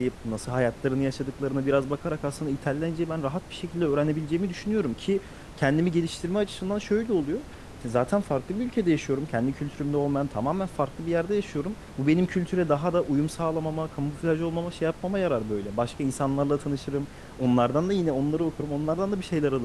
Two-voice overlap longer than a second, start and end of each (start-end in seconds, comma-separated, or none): none